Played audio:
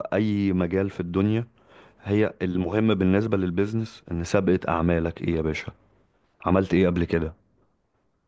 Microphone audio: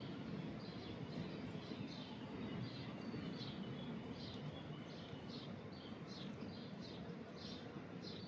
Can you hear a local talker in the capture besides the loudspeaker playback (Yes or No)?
No